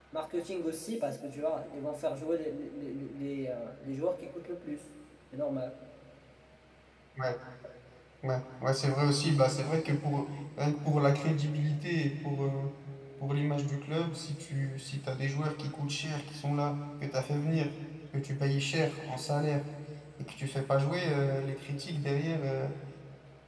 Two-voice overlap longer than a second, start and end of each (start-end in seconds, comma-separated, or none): none